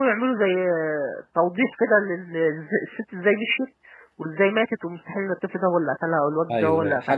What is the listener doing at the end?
taking over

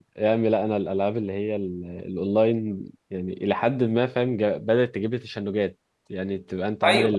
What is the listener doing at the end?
listening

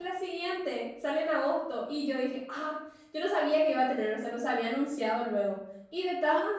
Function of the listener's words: listening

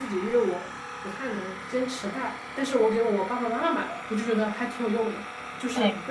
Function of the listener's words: listening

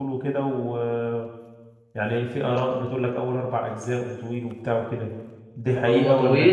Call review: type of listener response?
taking over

